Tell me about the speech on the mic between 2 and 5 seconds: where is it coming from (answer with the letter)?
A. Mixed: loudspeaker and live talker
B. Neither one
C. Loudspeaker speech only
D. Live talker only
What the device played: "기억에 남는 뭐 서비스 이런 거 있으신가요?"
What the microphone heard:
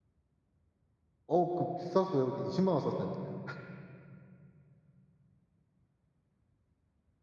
D